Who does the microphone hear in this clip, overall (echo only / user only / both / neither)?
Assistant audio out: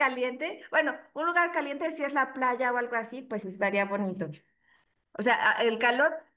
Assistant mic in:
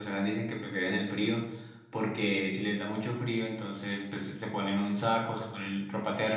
user only